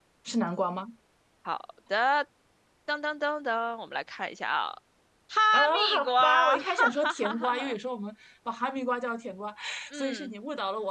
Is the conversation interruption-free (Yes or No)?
No